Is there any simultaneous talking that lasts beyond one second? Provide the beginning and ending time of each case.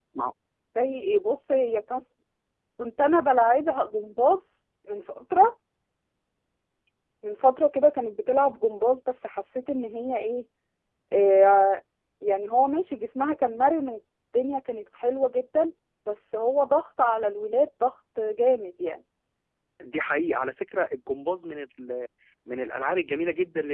none

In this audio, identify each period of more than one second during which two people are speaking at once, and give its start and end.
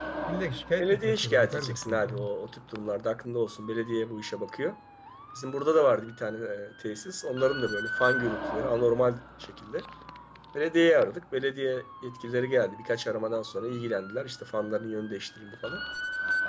0.8-2.2

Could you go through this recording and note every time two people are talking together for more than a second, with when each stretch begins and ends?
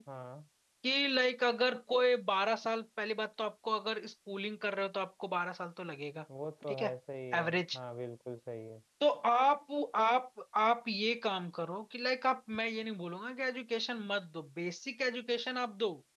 none

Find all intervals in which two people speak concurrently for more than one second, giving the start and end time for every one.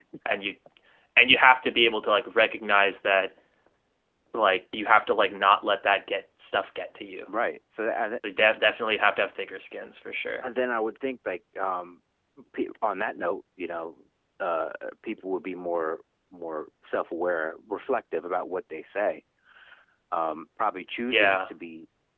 none

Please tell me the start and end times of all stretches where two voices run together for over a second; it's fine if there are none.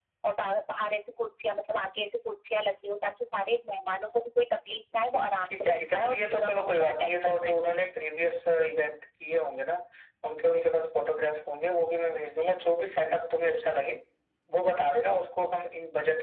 5.5-7.5

